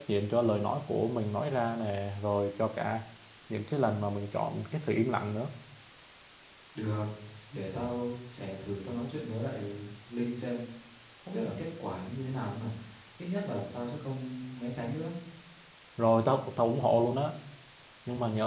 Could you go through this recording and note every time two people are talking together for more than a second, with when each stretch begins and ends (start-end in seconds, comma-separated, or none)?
none